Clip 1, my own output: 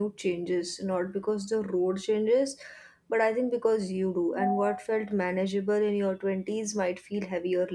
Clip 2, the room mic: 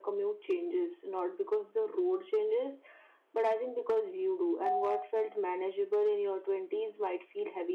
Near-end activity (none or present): none